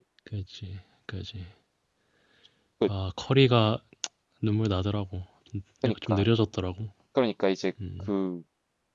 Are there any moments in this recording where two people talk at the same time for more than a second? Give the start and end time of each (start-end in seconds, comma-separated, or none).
none